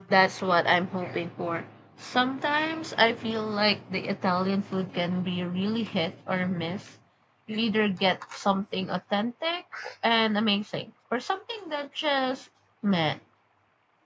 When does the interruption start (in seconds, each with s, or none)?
none